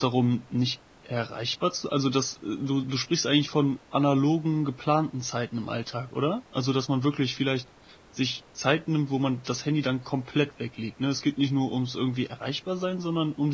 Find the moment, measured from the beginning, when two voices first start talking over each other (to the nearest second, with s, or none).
none